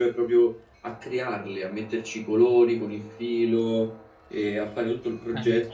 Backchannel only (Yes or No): Yes